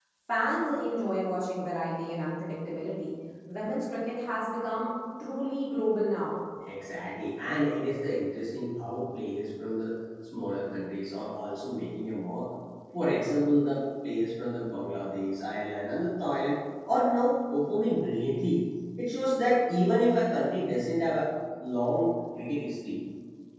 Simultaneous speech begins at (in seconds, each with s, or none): none